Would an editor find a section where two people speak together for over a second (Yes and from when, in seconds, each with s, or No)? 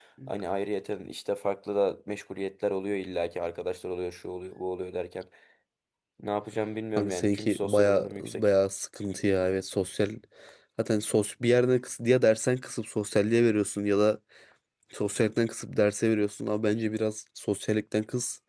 Yes, from 7.0 s